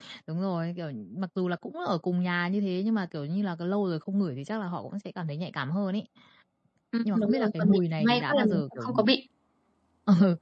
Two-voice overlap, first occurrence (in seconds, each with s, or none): 7.0 s